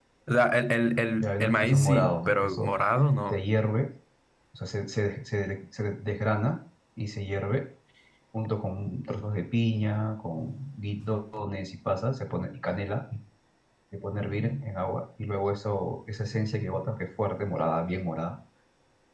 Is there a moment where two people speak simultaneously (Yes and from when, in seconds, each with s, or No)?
Yes, from 1.2 s